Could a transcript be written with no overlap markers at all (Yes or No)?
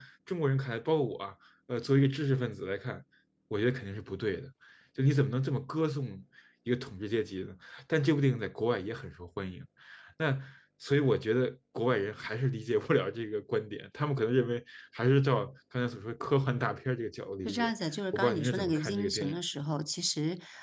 No